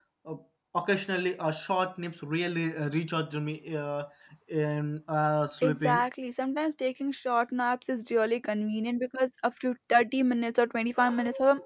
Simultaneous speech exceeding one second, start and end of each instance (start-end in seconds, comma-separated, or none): none